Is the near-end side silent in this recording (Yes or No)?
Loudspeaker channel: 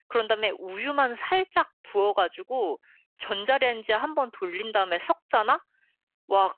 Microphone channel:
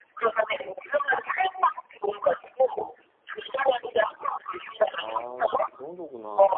No